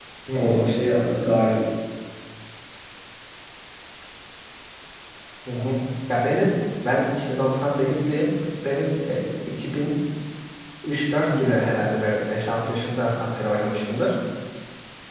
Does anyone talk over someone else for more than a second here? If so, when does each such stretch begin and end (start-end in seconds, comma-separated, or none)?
none